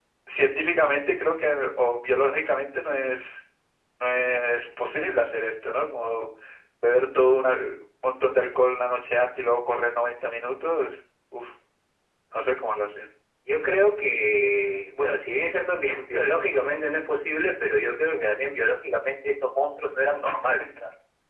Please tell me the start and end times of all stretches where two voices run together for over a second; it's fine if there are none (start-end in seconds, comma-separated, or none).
none